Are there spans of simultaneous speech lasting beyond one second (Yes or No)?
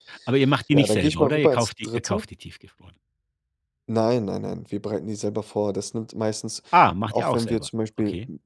Yes